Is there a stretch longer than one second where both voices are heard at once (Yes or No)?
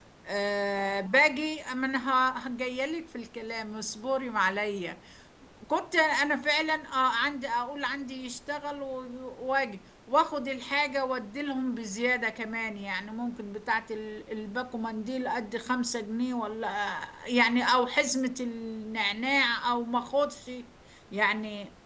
No